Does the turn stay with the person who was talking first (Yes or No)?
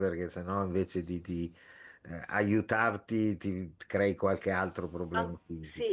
No